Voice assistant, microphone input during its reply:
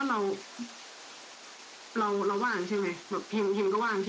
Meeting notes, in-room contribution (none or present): none